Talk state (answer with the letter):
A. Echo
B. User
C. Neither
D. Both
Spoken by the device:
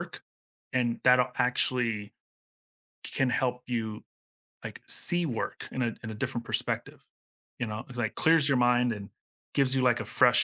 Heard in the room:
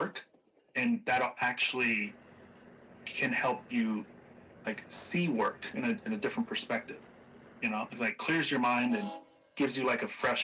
A